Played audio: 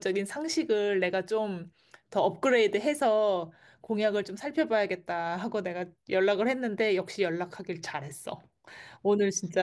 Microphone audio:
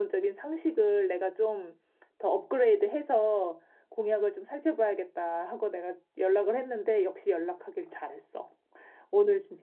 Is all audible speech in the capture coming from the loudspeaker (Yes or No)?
Yes